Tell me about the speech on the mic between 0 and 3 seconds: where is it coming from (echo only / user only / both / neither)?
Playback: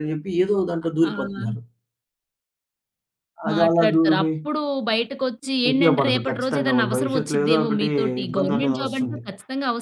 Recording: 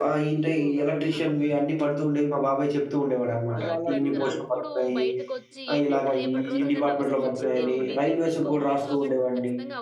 both